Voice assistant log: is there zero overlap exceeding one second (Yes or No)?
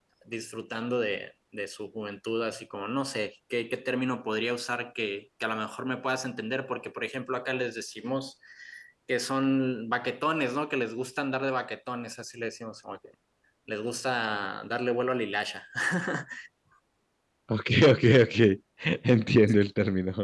Yes